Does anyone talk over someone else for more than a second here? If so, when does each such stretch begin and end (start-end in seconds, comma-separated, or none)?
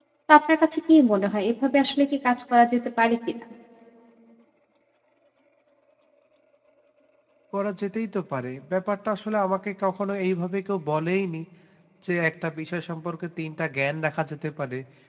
none